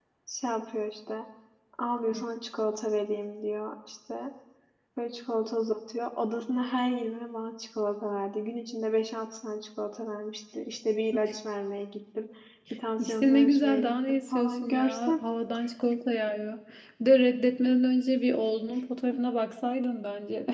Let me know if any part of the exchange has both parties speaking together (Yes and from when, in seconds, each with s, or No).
Yes, from 13.0 s